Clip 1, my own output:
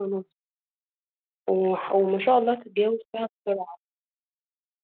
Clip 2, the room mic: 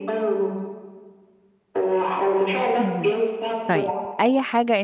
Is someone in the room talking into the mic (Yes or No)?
Yes